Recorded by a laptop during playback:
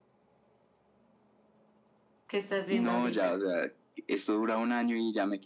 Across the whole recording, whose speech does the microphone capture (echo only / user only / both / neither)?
both